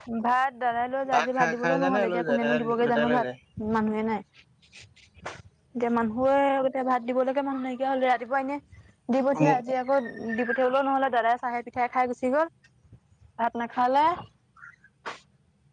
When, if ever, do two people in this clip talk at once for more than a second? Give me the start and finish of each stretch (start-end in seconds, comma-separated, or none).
1.1-3.2